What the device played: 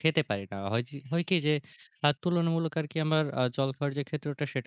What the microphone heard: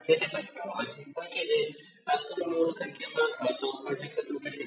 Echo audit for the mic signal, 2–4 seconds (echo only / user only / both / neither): echo only